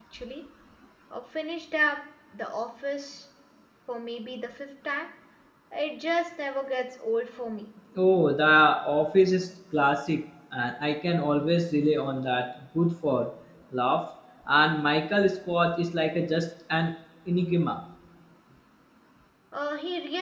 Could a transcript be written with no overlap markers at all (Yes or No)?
Yes